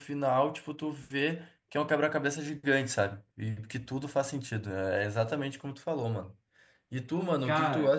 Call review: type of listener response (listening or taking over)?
listening